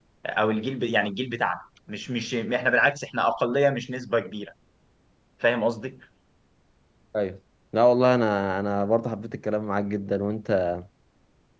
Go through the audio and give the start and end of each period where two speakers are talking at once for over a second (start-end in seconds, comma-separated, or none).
none